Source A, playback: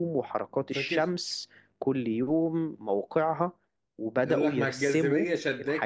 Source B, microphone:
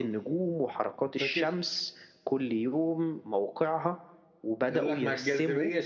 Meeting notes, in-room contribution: none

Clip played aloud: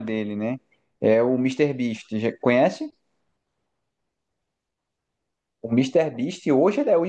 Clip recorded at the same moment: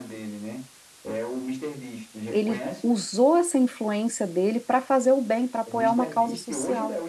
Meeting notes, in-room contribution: present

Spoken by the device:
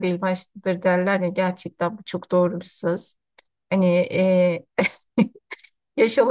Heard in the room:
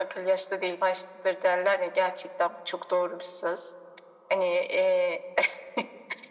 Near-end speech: none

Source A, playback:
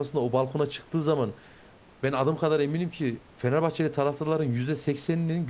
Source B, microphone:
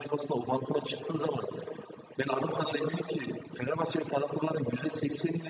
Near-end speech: none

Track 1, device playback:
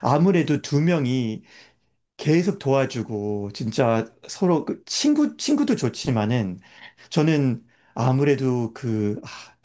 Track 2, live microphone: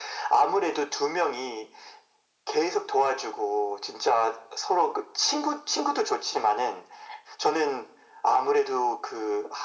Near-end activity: none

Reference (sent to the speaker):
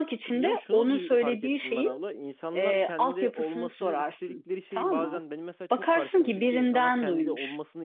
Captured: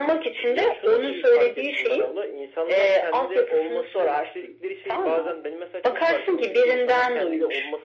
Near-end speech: none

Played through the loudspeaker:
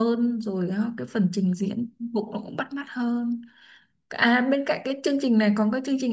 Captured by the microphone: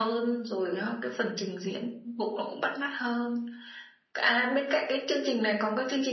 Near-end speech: none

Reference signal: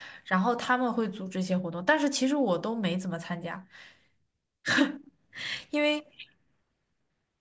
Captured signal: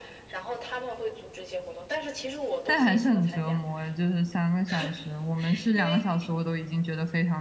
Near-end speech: present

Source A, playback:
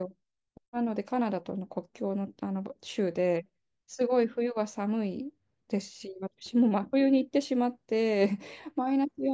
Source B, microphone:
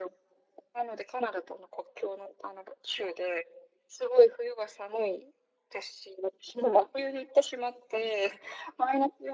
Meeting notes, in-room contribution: none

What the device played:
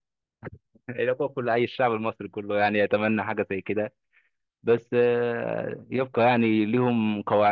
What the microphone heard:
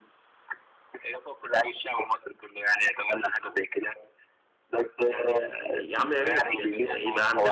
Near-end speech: present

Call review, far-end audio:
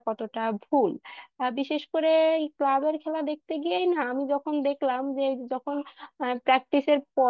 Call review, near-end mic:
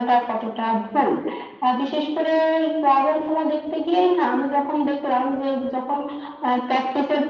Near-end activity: none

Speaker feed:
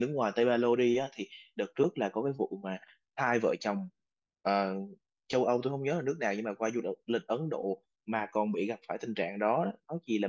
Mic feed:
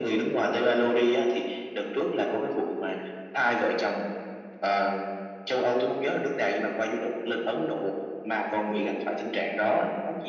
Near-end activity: none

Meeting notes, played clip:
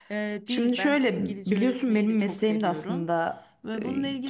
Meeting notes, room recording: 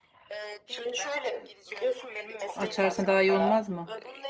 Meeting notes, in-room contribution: present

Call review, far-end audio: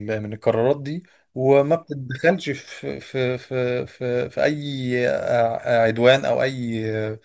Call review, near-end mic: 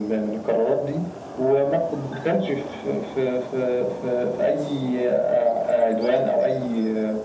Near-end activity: none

